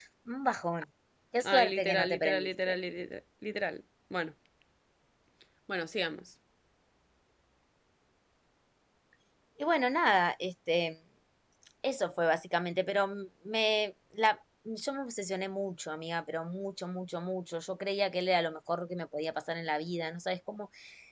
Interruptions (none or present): present